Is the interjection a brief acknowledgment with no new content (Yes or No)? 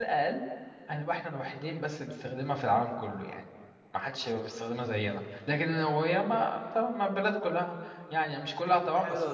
No